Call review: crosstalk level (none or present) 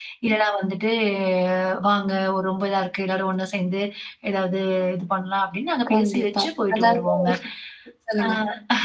present